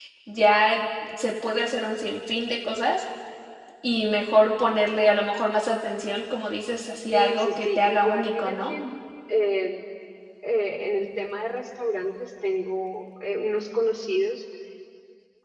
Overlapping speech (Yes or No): Yes